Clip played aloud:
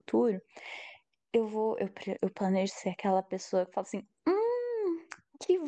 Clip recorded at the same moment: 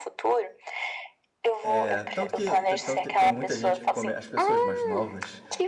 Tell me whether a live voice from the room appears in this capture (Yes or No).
Yes